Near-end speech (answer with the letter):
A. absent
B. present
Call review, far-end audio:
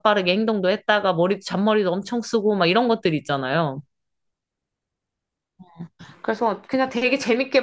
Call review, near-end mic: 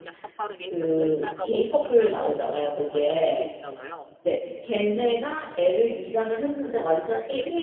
B